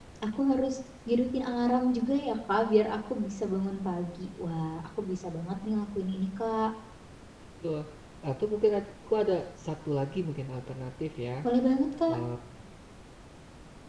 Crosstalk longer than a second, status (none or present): none